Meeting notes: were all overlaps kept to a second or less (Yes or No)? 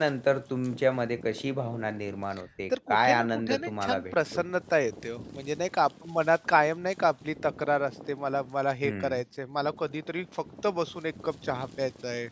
No